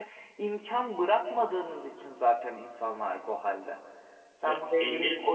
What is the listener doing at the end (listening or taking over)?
listening